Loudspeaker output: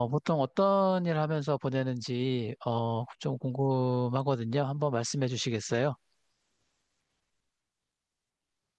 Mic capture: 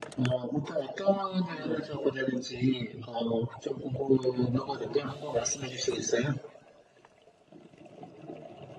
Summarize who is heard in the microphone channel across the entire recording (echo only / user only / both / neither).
both